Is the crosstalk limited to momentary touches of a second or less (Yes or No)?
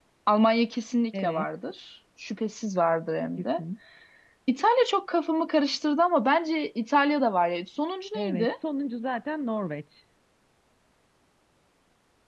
Yes